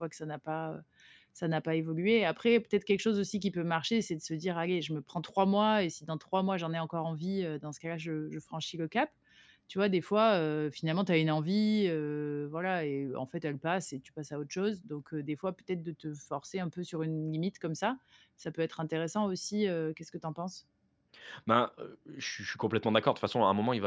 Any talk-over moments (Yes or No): No